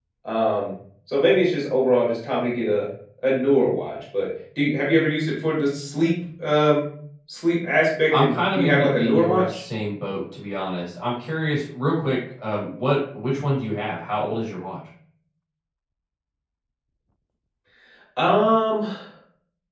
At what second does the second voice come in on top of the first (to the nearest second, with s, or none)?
8 s